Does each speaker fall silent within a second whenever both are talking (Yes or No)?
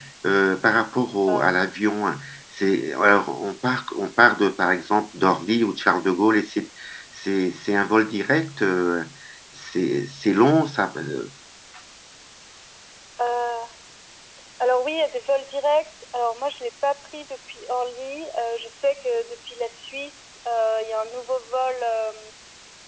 Yes